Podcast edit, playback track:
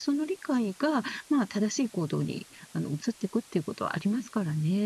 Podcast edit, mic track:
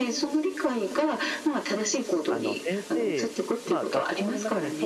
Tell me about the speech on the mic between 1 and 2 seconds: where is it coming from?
echo only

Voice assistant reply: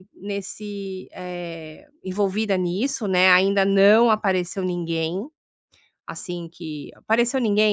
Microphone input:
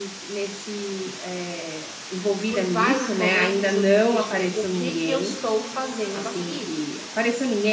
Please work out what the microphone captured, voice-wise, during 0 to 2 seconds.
echo only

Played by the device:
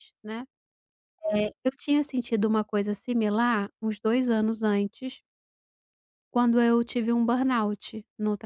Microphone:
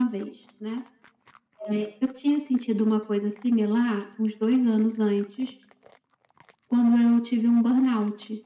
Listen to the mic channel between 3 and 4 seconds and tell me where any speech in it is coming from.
echo only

